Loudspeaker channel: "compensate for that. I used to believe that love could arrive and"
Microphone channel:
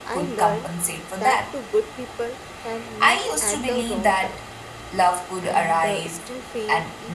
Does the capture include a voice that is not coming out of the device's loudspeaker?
Yes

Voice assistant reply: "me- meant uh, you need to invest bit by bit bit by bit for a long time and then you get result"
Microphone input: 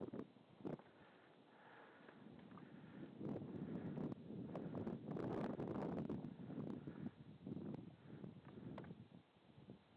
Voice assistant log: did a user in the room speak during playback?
No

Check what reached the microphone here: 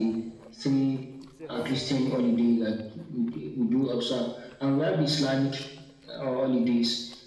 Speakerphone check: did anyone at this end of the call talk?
Yes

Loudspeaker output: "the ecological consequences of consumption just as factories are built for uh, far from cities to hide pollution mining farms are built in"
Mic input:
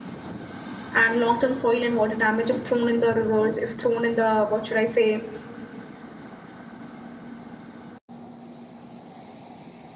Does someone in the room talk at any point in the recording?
Yes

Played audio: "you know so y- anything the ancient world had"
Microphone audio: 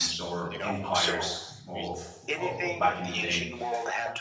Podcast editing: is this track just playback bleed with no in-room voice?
No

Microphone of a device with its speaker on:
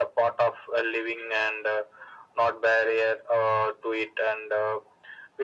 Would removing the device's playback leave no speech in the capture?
Yes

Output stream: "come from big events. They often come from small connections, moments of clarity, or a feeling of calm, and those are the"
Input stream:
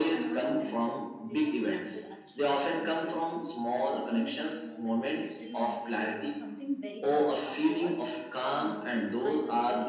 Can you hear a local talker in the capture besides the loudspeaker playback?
Yes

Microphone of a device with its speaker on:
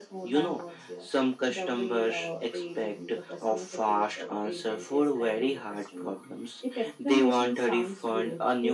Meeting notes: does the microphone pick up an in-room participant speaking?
No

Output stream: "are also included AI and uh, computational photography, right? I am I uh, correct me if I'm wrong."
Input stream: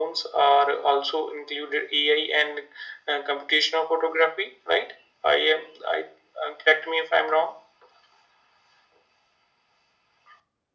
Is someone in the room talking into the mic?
No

